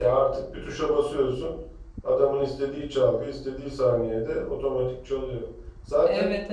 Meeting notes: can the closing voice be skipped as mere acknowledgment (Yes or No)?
Yes